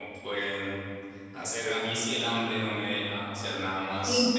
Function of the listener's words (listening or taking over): listening